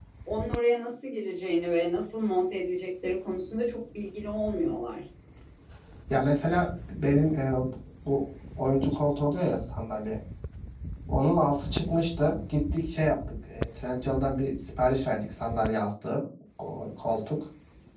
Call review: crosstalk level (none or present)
none